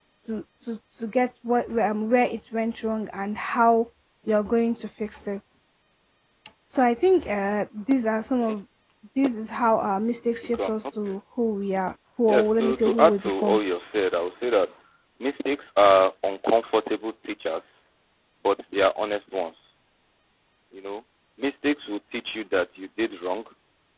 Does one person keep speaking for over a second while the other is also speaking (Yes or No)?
Yes